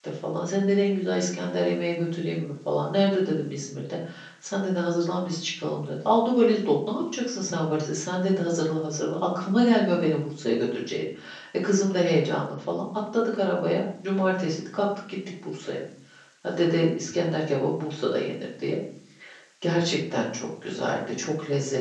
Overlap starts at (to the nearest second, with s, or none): none